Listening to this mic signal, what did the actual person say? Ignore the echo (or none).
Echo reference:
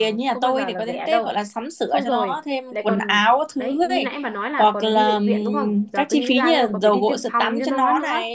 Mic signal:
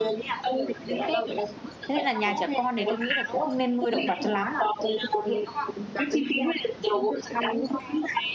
thế nên là nhà trẻ con thì tôi nghĩ là cũng không nên nuôi động vật cho lắm